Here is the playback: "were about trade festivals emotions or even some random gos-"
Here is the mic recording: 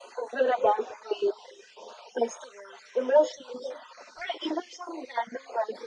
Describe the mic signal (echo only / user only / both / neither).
echo only